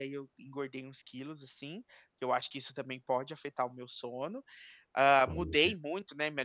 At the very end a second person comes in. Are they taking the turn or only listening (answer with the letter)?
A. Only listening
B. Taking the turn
A